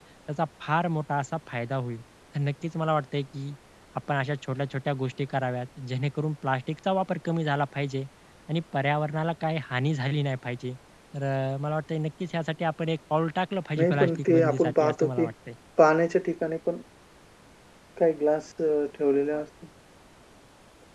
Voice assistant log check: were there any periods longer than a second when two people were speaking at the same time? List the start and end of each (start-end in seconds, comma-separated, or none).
13.8-15.2